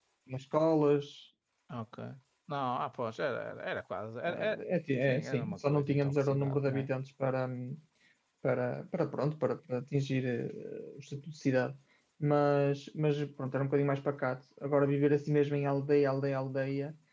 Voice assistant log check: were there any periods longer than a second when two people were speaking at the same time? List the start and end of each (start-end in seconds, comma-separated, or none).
5.1-6.9